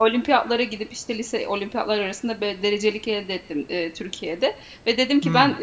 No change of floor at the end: Yes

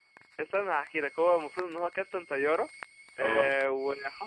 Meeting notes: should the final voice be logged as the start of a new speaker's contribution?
No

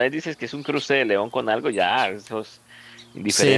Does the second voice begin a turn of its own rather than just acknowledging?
Yes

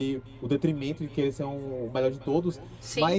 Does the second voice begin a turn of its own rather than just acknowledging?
No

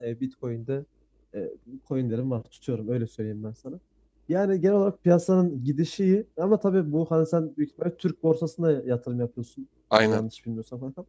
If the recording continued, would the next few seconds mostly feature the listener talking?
No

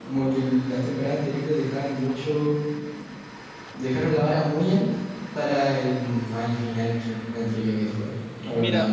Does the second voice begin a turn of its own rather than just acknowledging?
No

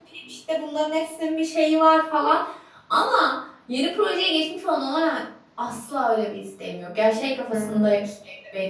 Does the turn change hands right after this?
No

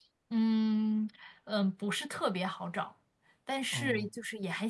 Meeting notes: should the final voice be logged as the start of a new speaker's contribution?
No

